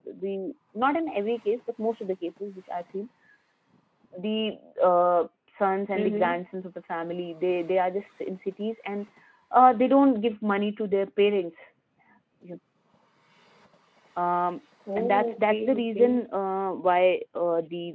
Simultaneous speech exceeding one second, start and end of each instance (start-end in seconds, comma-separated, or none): 15.0-16.2